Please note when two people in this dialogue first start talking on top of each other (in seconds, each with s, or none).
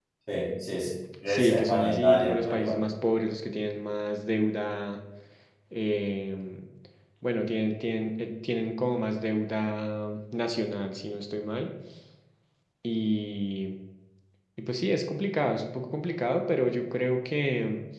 1.3 s